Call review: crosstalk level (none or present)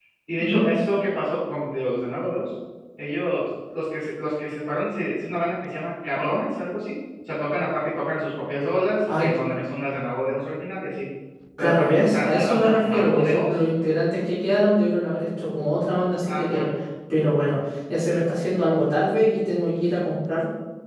present